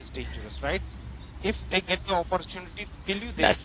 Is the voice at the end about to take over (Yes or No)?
No